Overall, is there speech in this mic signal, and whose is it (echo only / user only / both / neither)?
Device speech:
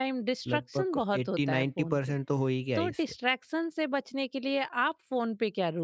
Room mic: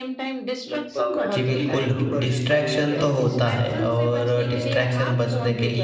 both